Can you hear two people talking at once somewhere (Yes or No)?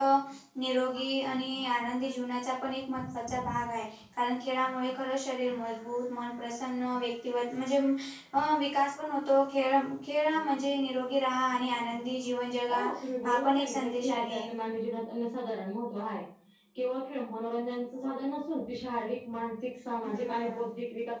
Yes